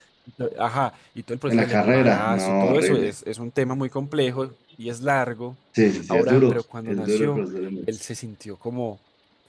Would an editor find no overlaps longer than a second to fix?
No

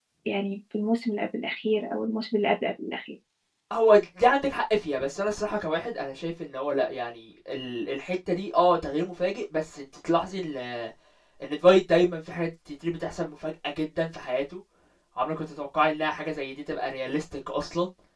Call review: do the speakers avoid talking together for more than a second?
Yes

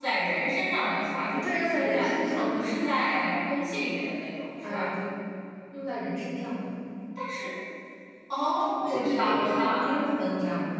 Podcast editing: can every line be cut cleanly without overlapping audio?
No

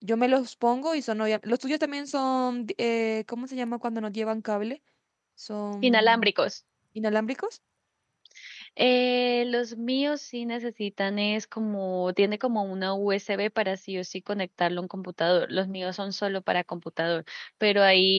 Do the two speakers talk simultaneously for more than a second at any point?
No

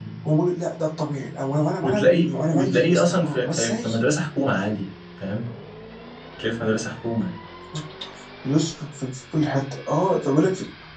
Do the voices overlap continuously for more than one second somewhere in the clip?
Yes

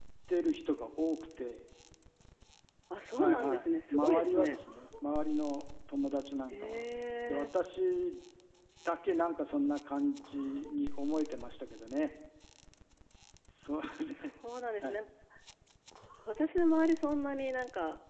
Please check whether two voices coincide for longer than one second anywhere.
Yes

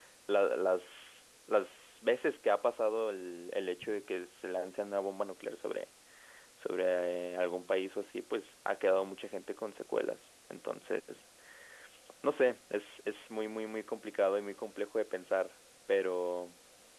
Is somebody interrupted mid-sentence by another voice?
No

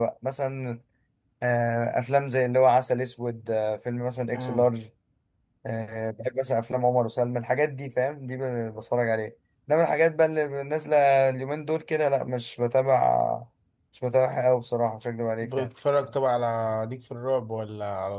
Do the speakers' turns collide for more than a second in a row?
No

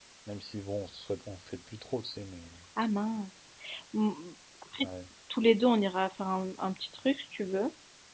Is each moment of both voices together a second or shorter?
Yes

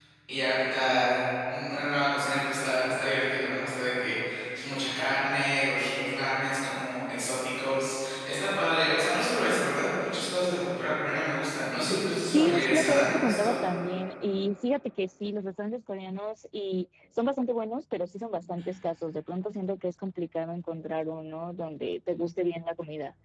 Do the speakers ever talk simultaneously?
Yes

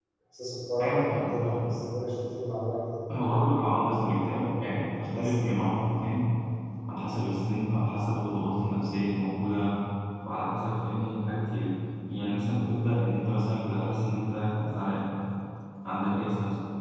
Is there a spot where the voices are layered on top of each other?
Yes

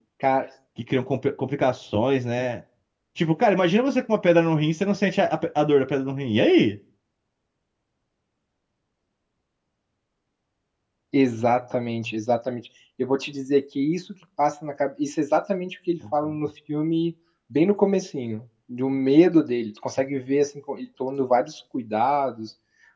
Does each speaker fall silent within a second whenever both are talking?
Yes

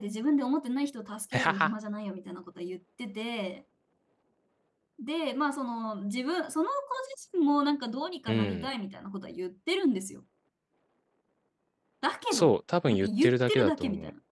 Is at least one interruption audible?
Yes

